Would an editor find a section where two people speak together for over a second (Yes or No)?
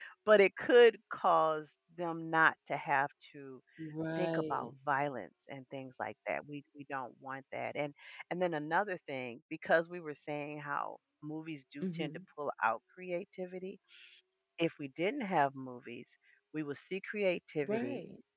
No